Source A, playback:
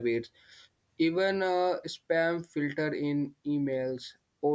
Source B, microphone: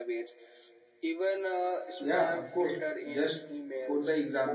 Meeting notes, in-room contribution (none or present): present